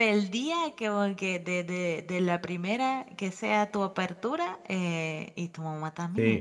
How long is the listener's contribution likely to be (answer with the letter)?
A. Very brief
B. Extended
B